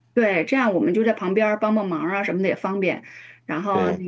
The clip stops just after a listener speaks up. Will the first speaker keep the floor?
Yes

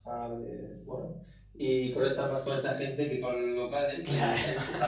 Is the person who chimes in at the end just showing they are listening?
Yes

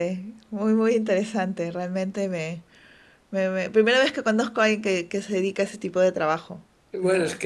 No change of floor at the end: No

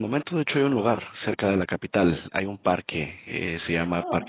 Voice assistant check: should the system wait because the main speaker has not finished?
Yes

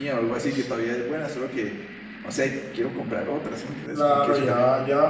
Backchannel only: No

